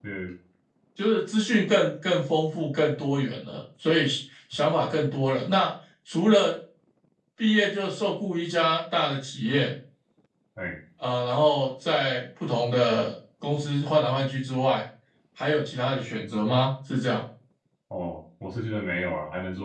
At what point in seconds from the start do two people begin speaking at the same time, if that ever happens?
none

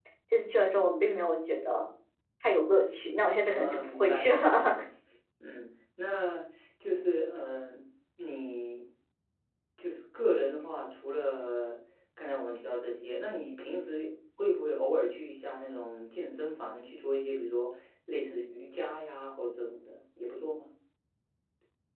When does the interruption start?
3 s

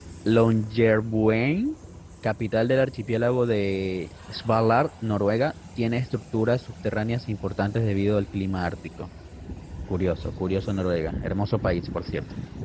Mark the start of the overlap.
none

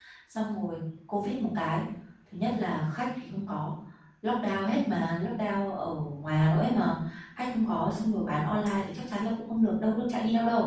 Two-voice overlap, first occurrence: none

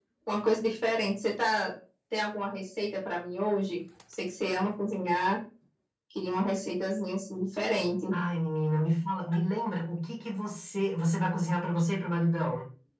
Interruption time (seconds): none

